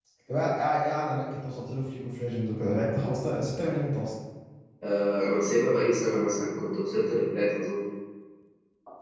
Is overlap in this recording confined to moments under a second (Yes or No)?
Yes